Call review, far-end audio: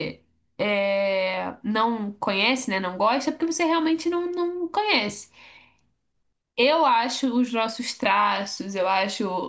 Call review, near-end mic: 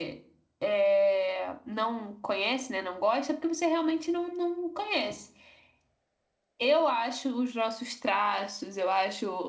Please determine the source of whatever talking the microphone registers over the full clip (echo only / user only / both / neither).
echo only